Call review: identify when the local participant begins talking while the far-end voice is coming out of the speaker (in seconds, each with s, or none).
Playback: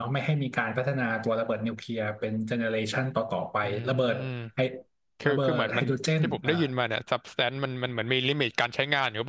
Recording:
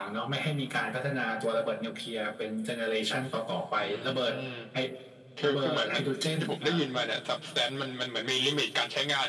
none